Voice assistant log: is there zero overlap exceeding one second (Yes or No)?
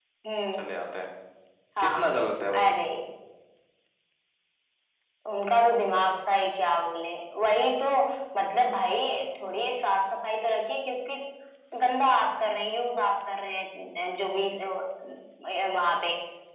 Yes